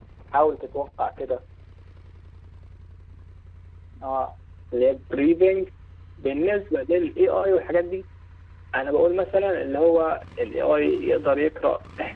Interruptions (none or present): none